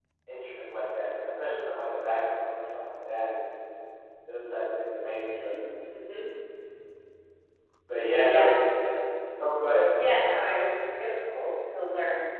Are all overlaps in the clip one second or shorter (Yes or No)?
Yes